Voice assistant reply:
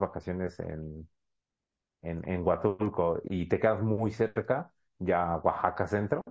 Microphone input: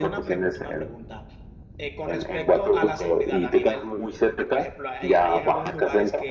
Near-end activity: present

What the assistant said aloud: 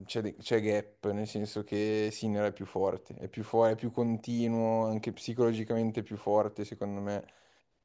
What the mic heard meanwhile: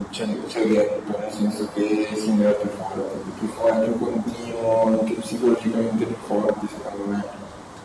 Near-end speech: none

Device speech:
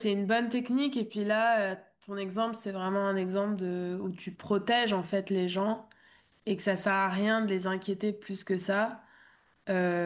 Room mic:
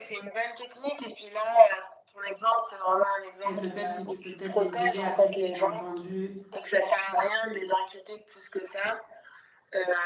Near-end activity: present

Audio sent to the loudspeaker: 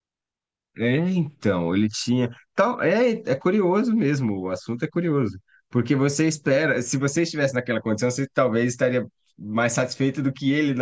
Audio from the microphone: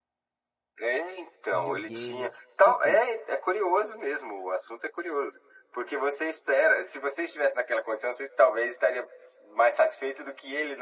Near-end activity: present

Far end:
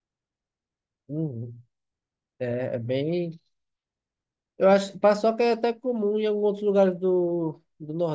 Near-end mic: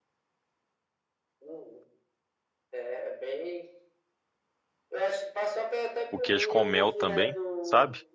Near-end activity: present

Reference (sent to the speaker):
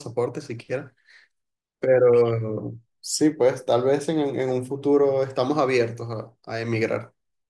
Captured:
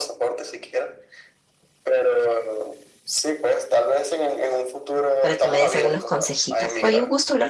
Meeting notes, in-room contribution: present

